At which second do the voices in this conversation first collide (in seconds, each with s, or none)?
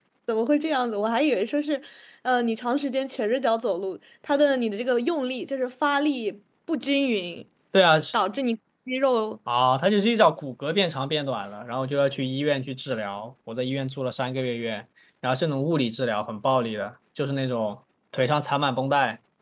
none